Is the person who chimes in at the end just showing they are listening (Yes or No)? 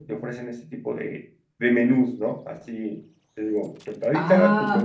No